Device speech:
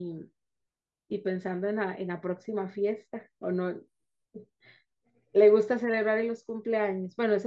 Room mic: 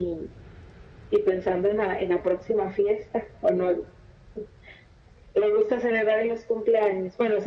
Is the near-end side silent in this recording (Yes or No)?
Yes